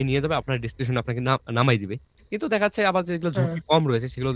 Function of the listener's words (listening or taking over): listening